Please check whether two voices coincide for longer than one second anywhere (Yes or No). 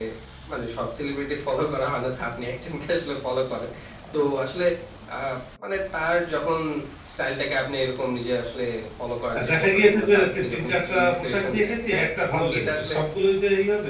Yes